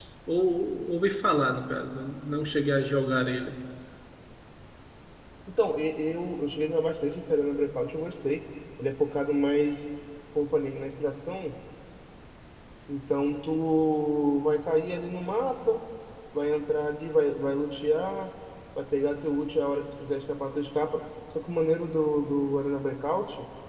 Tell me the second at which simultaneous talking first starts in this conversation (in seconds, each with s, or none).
none